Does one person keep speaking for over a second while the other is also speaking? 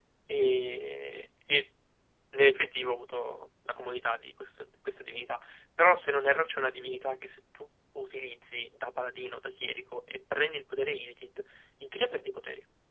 No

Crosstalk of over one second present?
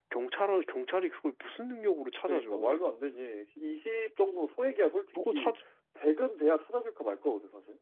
No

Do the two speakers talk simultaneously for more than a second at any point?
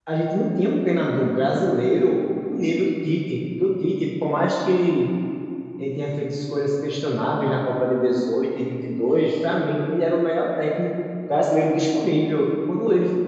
No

